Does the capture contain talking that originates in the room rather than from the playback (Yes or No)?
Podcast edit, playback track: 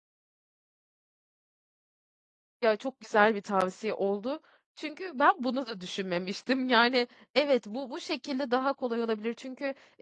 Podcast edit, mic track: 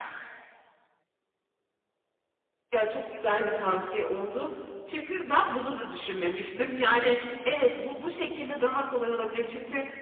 No